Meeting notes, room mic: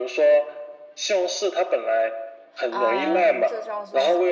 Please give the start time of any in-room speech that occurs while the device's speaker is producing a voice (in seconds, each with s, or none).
2.7 s